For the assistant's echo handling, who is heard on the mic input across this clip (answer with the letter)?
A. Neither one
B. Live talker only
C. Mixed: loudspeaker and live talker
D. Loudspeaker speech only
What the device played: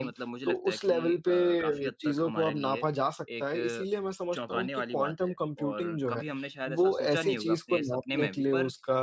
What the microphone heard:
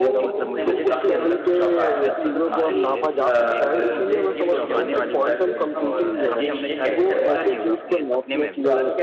C